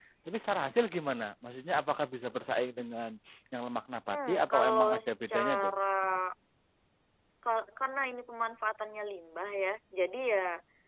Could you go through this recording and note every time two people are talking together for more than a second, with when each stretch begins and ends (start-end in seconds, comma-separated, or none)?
4.1-5.5